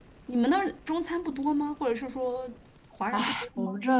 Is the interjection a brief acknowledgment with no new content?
No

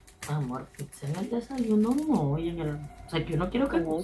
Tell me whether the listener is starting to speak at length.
Yes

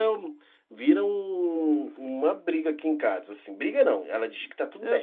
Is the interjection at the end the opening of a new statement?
No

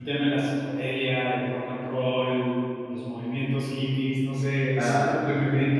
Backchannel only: Yes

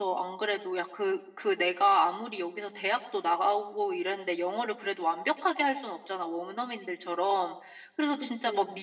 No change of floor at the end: Yes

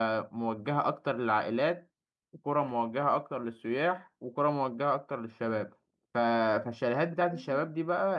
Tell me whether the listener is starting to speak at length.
No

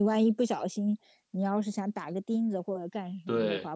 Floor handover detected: No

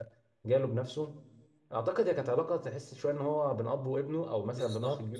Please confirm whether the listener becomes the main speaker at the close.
Yes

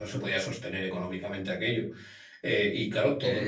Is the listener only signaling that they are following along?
No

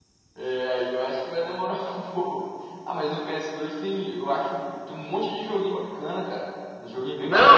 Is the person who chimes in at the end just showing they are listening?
No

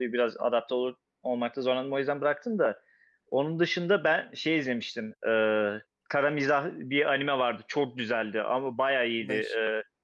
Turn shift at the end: No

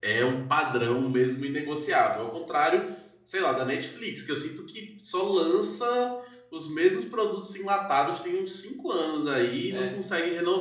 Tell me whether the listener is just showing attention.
Yes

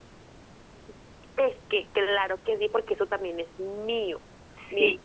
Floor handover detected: No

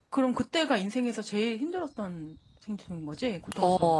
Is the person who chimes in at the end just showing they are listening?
No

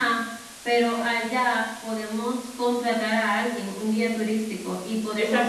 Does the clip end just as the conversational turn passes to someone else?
Yes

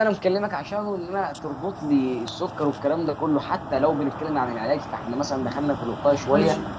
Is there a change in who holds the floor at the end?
Yes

